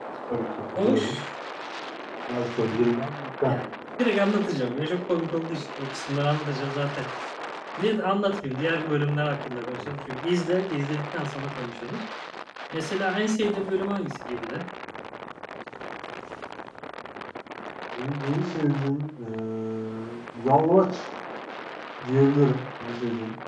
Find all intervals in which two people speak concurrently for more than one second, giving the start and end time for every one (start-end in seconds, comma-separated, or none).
none